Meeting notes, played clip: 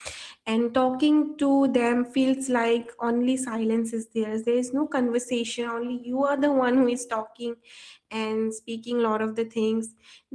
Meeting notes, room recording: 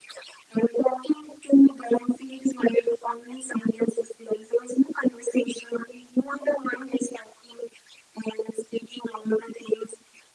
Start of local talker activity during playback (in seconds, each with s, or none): none